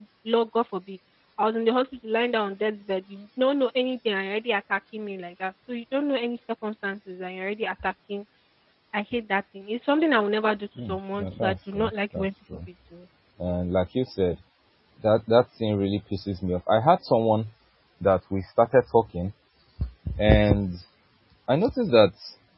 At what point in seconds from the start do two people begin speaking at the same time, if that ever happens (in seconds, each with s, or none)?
10.8 s